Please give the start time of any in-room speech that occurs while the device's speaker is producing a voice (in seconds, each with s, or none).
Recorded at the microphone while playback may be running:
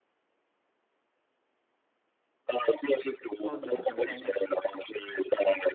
3.4 s